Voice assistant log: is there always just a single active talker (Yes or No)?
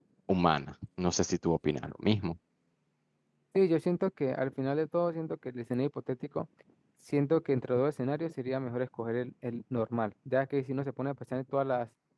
Yes